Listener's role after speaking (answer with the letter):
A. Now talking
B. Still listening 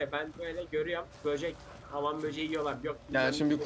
A